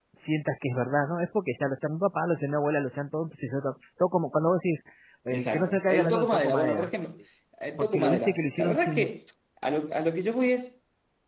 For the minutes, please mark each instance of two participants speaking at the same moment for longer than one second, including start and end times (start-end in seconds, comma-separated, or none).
5.3-6.9, 7.8-9.1